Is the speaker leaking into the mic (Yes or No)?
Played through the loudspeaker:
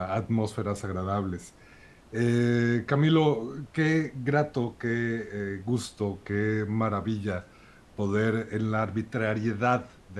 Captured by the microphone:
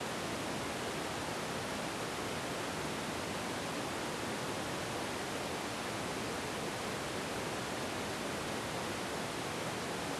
No